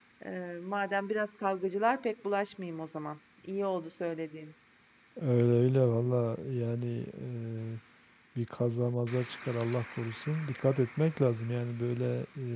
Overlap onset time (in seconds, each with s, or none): none